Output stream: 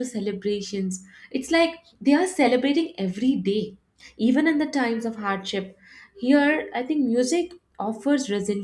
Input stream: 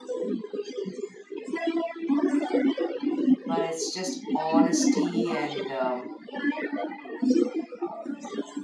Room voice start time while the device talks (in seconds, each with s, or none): 3.4 s